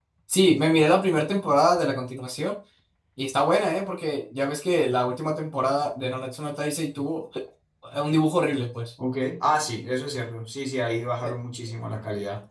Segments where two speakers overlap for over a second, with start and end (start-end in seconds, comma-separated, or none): none